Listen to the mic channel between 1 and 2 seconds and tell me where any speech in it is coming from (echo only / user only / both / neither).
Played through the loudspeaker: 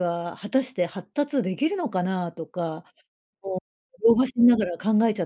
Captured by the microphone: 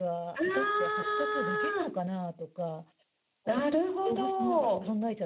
both